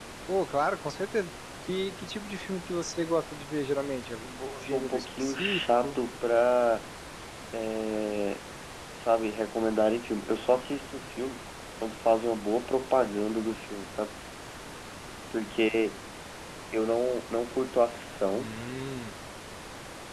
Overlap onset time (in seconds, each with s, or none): 4.4 s